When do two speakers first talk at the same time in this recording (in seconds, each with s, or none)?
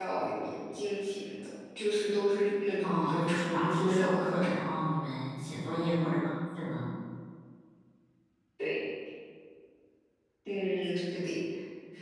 2.8 s